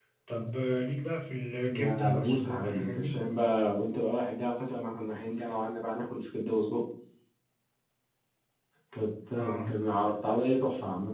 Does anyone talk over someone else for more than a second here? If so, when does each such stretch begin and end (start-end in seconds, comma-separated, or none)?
1.8-3.2